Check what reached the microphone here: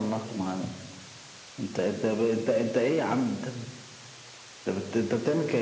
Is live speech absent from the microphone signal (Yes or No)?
Yes